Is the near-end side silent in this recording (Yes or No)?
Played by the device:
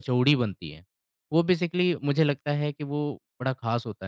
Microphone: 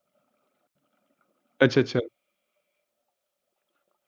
No